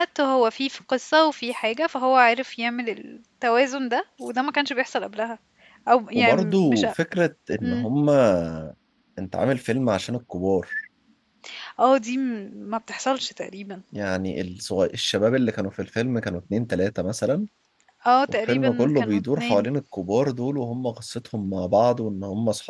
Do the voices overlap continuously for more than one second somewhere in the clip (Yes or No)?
Yes